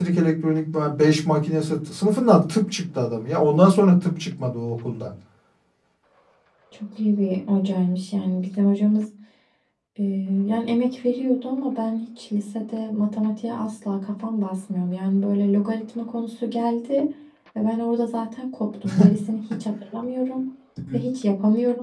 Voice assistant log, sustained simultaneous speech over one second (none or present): none